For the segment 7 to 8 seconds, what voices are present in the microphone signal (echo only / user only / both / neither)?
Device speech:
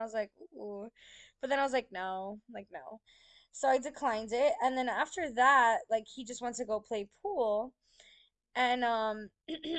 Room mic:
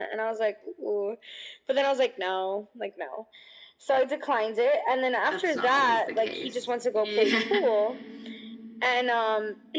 both